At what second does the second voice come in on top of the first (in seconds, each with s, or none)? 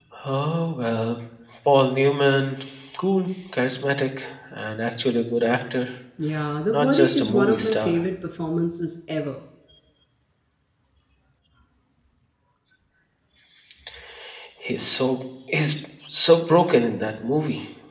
6.7 s